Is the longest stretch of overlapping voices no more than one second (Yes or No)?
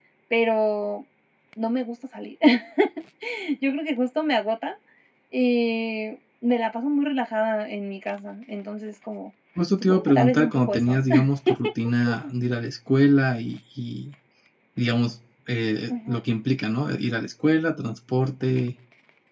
No